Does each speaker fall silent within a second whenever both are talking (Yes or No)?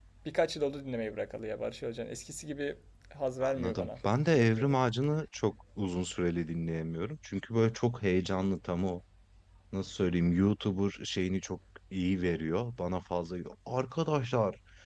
No